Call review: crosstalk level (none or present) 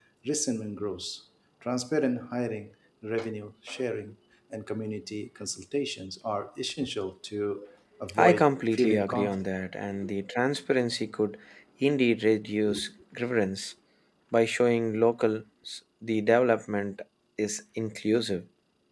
present